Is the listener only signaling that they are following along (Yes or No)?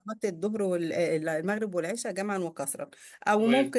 Yes